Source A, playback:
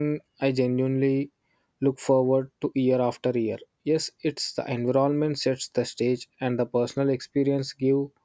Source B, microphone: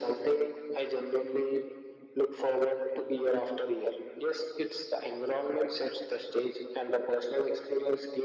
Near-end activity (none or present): none